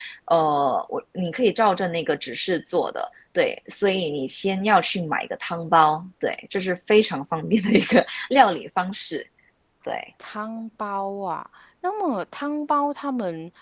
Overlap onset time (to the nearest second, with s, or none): none